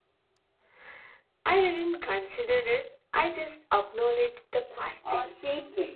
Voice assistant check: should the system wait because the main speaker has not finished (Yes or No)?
No